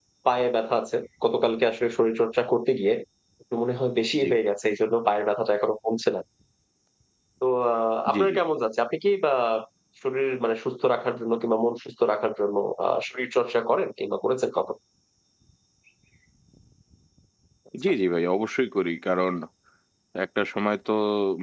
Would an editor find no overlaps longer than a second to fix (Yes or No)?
Yes